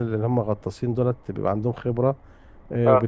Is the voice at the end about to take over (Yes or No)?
No